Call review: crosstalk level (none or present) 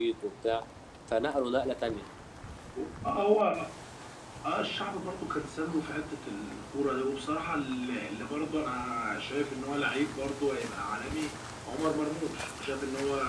none